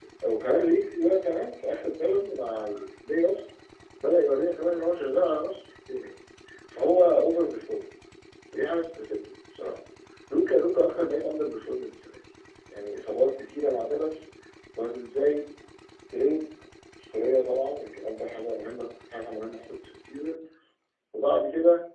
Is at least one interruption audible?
No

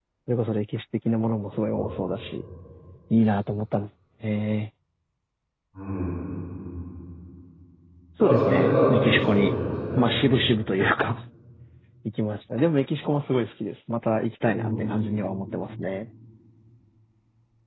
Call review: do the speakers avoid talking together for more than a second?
No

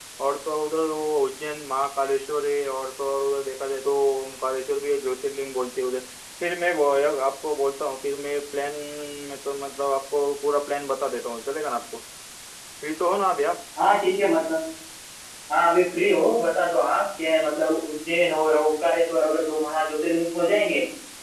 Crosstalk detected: No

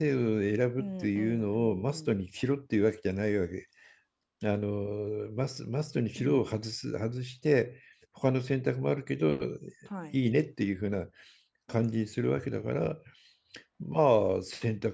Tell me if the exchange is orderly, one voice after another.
No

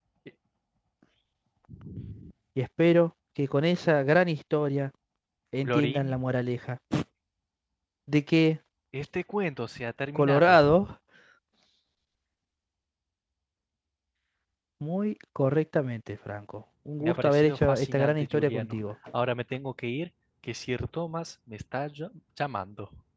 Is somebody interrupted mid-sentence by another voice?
Yes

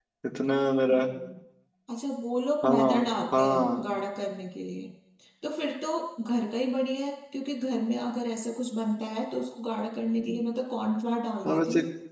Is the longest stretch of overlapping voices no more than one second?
No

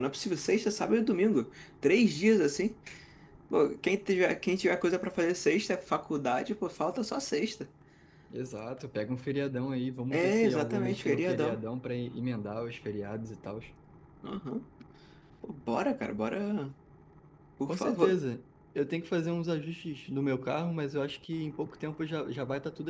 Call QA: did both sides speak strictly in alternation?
No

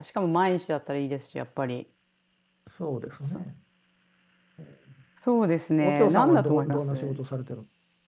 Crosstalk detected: Yes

